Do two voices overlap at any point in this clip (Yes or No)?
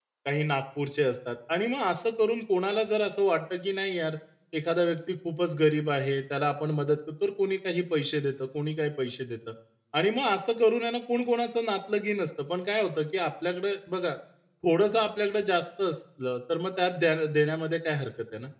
No